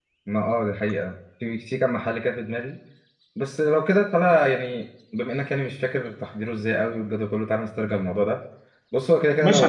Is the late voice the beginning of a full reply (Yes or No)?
Yes